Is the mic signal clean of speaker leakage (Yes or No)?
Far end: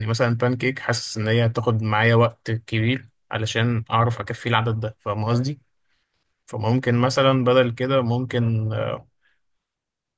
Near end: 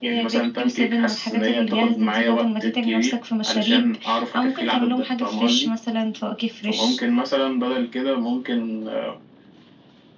No